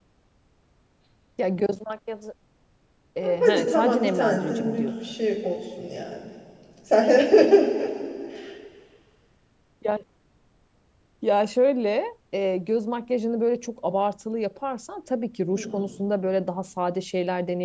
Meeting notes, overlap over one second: present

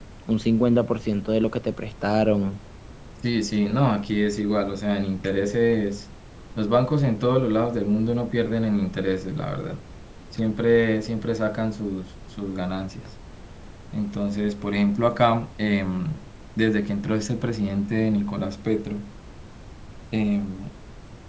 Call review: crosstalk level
none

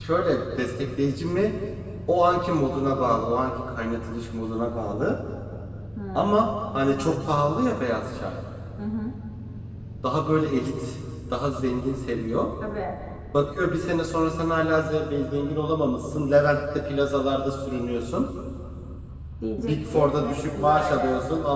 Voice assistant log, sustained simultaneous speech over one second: present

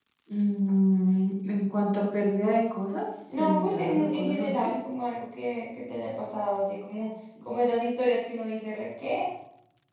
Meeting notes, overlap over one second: present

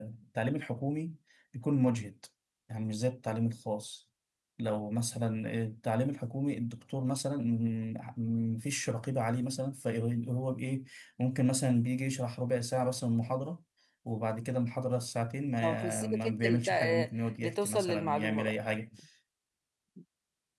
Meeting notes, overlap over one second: present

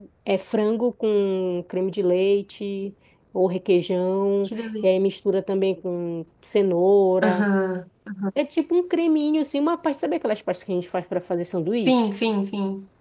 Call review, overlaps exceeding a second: none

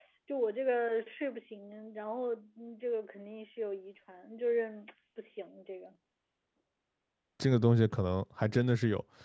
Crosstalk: none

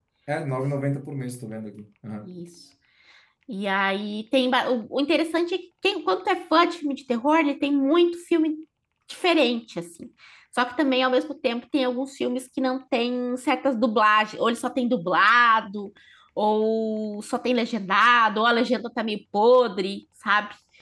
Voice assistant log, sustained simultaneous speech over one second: none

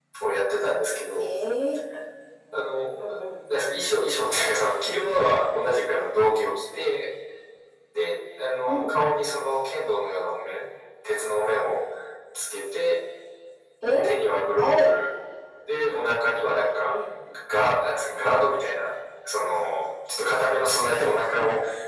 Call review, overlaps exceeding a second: none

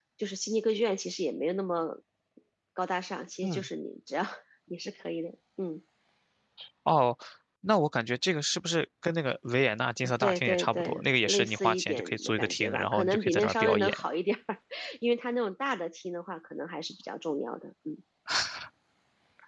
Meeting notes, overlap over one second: present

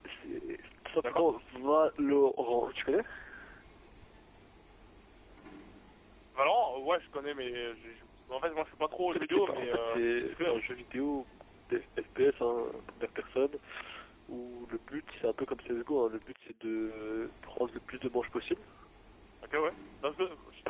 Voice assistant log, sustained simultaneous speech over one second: present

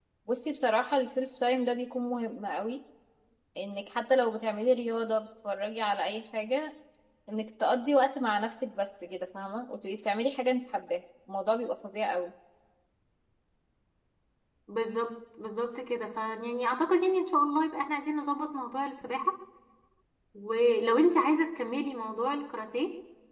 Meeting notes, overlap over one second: none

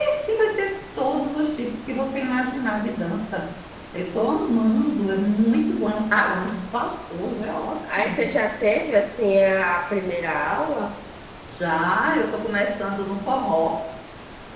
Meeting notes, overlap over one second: none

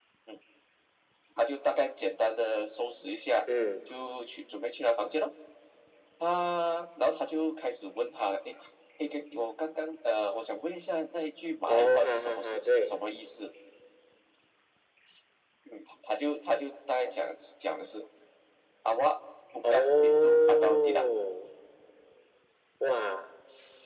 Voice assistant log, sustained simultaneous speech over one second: present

